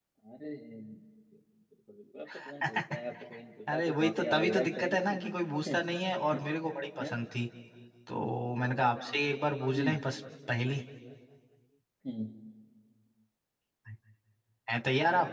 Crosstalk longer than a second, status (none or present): present